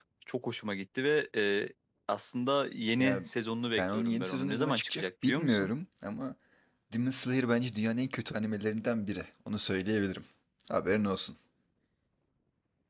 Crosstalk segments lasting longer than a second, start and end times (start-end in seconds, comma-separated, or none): 3.8-5.7